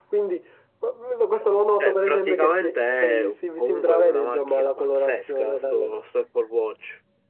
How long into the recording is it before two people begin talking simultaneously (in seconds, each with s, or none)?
1.8 s